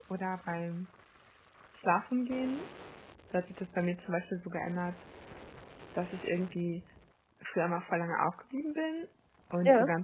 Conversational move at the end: listening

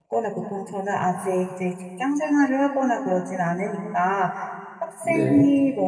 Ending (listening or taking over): listening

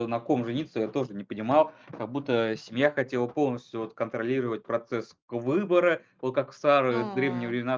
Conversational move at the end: listening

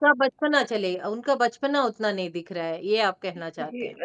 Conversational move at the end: taking over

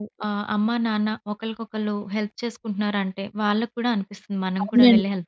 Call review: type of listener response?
taking over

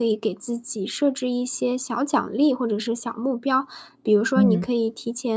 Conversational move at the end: listening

